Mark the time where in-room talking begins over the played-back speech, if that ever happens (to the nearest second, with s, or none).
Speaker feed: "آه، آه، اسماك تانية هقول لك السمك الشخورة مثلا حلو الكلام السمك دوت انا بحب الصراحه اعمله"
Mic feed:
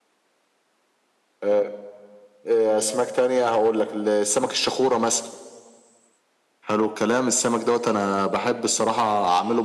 none